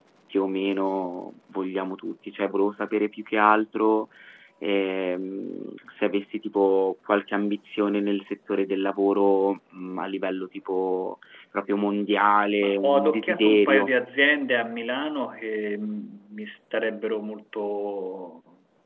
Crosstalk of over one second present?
Yes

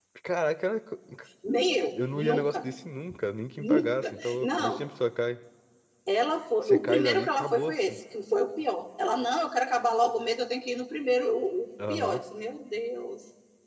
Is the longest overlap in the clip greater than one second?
Yes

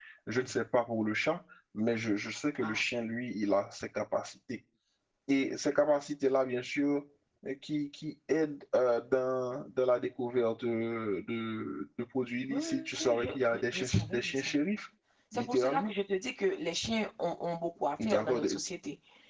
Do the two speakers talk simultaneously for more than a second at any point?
Yes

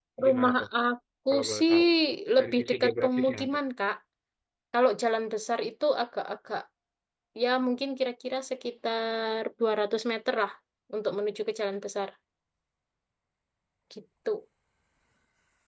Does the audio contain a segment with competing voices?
Yes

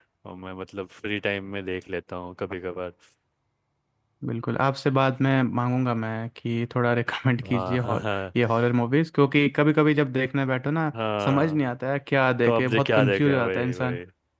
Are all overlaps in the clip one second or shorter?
No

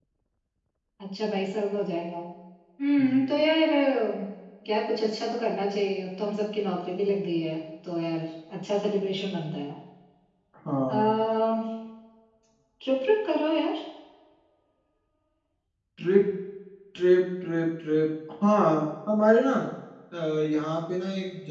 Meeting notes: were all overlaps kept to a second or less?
Yes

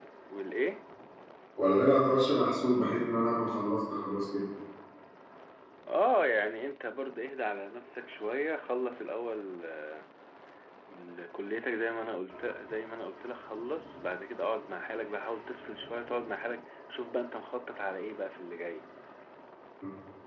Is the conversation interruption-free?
Yes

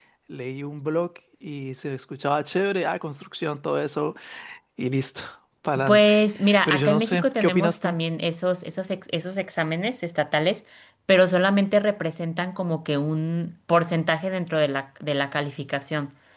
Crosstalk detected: Yes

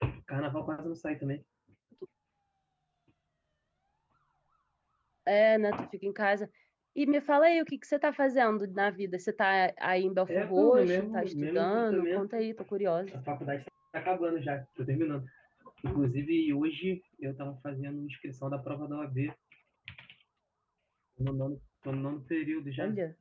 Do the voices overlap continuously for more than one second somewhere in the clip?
Yes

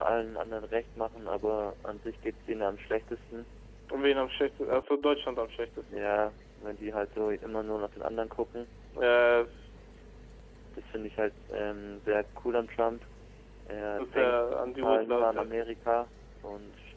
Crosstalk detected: Yes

